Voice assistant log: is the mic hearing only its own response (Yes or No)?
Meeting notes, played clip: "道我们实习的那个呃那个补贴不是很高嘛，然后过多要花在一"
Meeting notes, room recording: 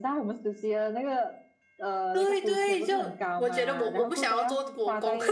No